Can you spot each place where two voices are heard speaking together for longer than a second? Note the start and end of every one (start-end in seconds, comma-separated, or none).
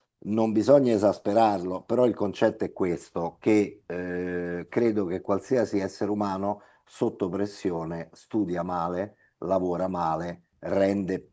none